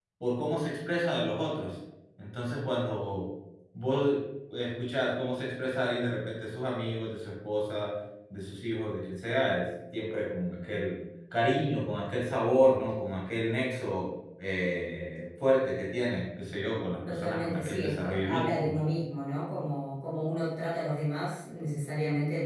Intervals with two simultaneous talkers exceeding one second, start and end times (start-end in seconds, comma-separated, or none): 17.1-18.8